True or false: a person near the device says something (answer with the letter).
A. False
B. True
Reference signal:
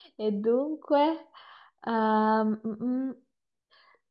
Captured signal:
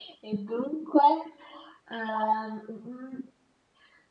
A